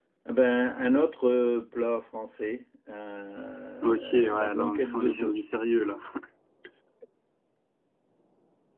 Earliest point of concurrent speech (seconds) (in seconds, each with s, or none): 3.8 s